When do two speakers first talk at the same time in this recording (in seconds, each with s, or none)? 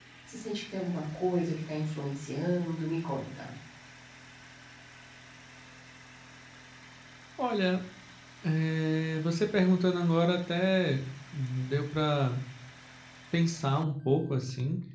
none